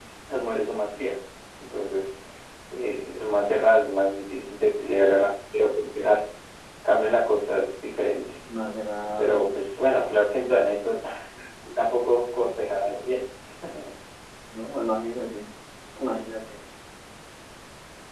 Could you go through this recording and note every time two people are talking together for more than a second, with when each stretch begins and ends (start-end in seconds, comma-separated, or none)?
none